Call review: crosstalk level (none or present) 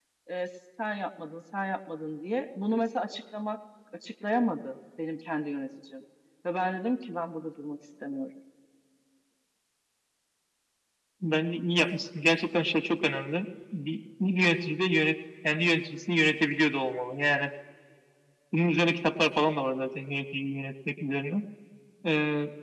none